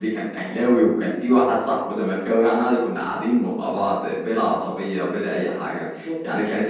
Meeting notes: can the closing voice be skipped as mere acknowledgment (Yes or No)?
Yes